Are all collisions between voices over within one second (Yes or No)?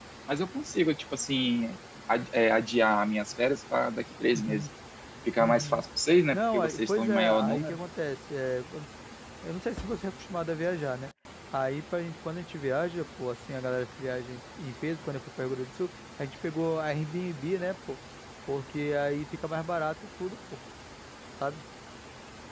No